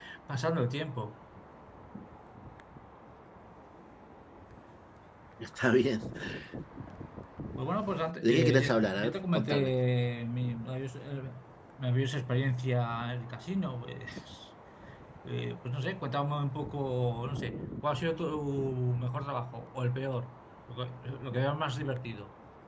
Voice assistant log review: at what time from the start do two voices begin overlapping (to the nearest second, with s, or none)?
8 s